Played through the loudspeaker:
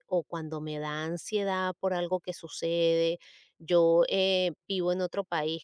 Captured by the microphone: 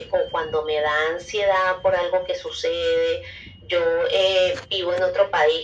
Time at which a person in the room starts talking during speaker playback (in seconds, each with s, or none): none